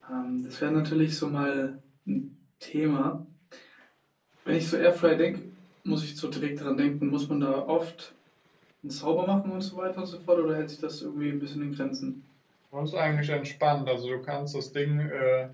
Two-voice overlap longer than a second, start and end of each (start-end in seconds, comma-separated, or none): none